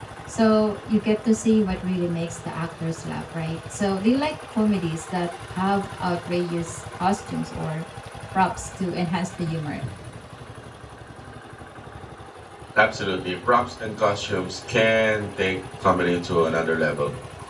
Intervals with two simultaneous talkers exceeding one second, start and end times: none

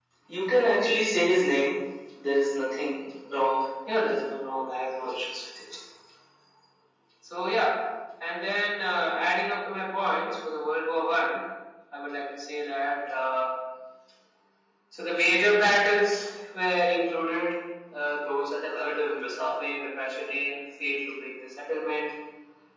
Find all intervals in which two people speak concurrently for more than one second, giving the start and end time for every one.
none

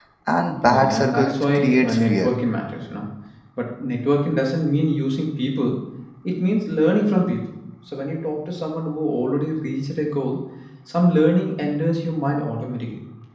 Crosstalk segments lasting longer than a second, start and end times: 0.7-2.3

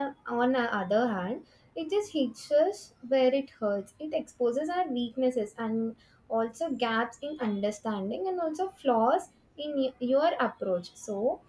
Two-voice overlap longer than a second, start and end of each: none

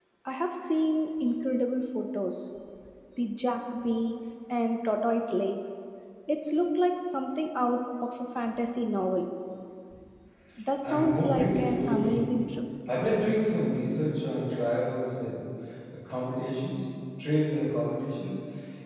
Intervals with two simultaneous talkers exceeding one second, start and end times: 10.8-12.3

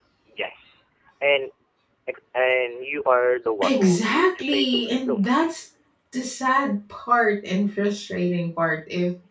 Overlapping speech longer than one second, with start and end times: 3.6-5.3

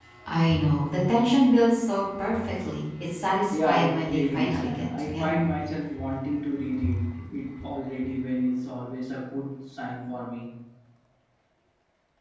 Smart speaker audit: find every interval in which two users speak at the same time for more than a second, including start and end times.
3.5-5.5

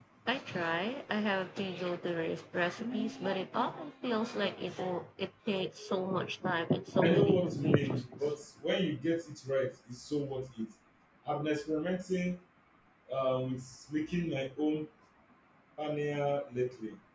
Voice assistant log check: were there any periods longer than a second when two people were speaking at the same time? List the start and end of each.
7.0-8.3

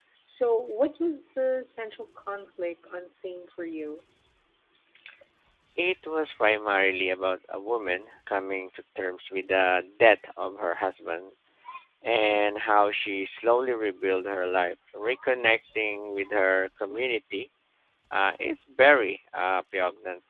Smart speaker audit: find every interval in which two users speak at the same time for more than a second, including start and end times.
none

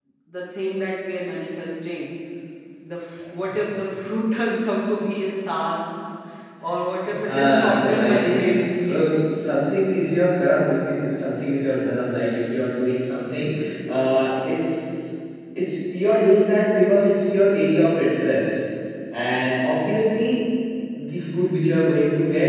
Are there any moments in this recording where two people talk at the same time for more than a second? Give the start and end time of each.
7.2-9.2

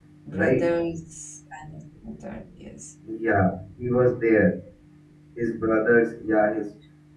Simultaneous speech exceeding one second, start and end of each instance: none

